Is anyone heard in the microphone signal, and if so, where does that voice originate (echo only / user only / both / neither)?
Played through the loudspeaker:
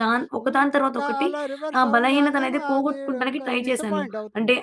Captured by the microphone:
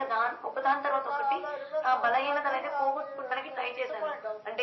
echo only